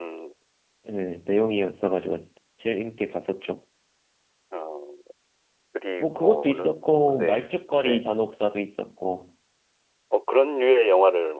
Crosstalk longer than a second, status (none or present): present